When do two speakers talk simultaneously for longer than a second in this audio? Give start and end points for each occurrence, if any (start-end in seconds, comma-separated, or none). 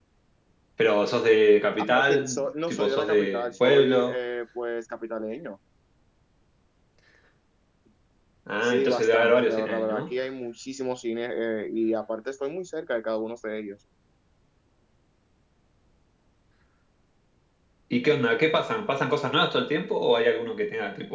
1.8-4.1, 8.6-10.0